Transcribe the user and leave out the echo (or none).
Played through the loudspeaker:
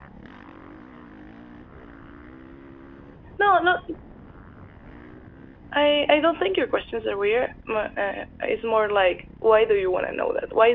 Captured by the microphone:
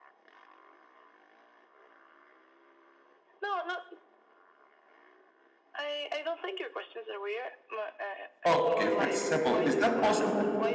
Okay. For example, is that possible?